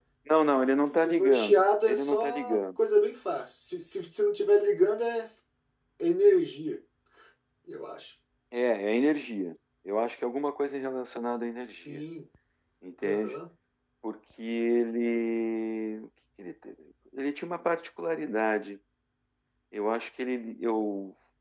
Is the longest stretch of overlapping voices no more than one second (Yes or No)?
No